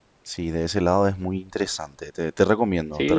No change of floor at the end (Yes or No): No